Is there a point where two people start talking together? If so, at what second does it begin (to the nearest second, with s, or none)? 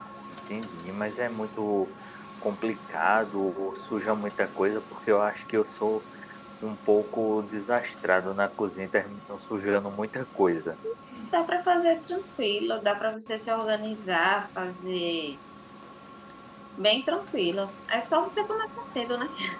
none